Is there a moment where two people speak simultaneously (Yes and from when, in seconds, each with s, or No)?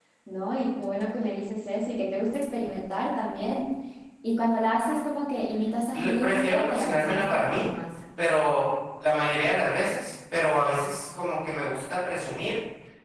Yes, from 5.9 s